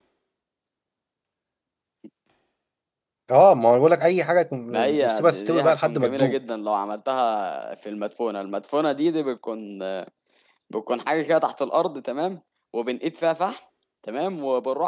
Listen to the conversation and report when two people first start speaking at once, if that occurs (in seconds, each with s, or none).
4.7 s